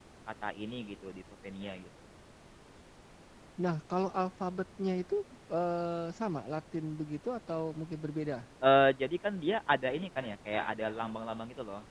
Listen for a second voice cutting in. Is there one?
No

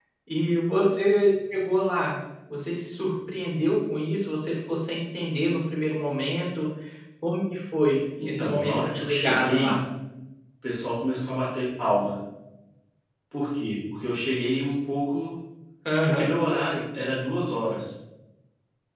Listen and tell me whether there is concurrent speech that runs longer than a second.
Yes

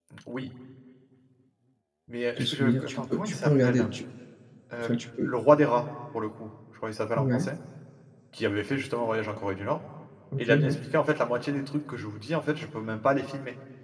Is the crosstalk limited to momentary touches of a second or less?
No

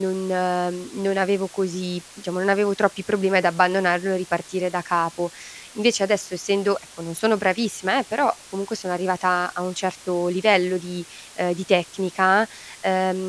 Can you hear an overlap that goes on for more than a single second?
No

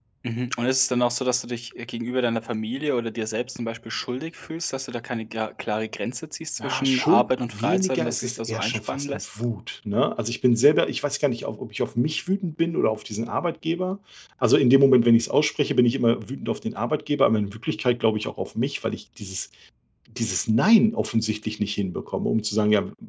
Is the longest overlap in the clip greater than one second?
Yes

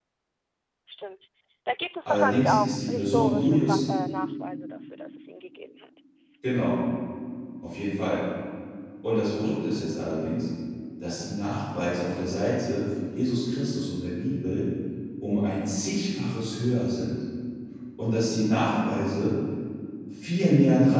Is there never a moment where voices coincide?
No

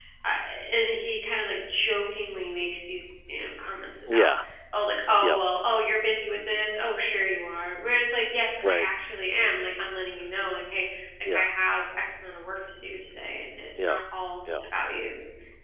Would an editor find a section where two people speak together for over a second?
No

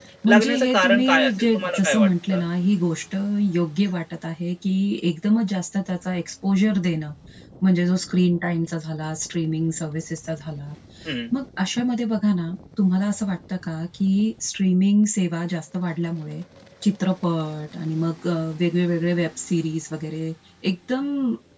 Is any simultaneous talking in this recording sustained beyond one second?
Yes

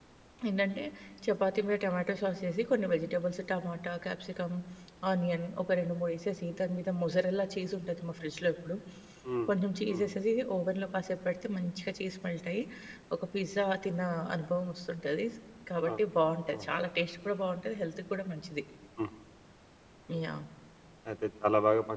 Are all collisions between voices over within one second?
Yes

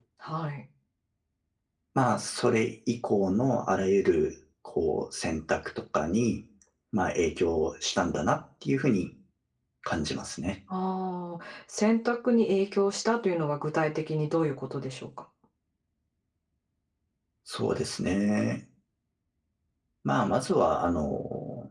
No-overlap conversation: Yes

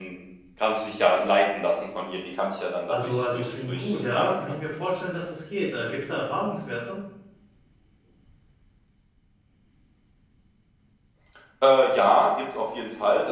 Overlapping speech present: Yes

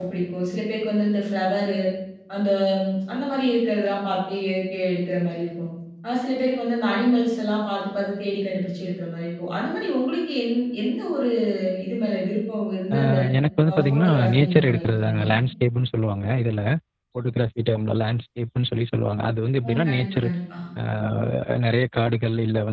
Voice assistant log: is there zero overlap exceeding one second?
No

